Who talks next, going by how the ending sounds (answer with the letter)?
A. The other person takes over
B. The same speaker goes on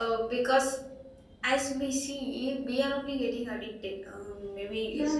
A